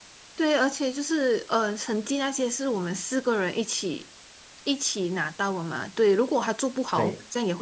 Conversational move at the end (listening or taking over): listening